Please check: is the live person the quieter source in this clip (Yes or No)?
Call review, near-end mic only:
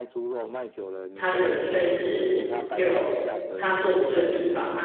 No